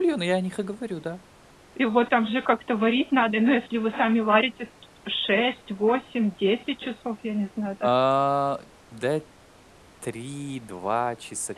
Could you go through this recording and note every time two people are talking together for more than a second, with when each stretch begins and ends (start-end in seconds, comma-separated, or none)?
none